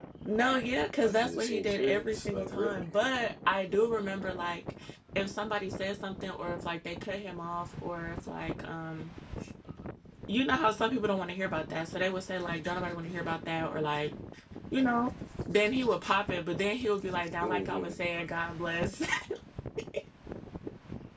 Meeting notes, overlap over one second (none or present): present